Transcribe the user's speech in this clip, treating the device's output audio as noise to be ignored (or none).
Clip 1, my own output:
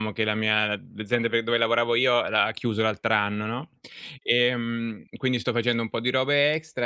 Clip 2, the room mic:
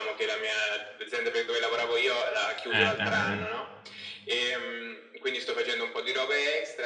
eh, eh, eh.